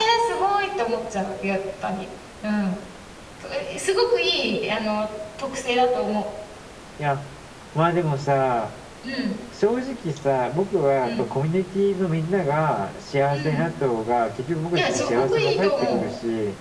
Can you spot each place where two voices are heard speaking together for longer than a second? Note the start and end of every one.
14.8-16.0

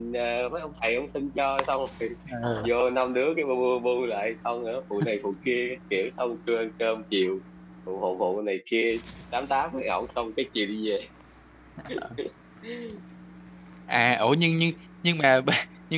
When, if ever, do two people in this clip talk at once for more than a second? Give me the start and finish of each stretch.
none

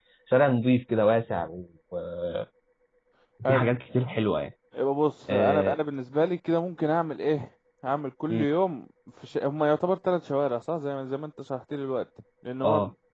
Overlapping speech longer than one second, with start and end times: none

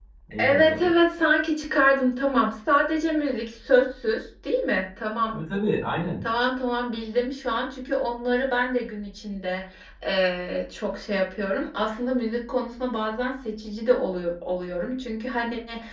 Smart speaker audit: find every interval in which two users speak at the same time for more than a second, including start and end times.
none

